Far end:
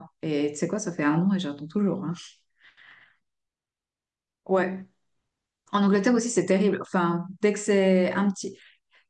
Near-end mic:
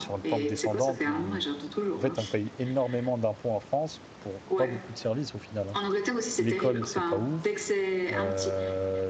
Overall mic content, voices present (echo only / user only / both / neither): both